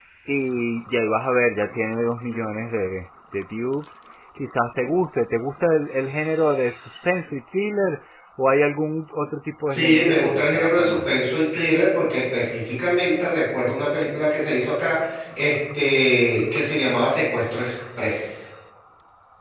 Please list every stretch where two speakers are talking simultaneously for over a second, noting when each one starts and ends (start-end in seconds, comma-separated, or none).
9.7-11.1